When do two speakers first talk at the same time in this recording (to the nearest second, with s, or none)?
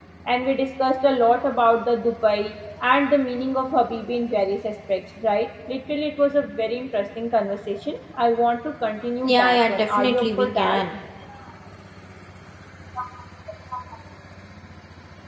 9 s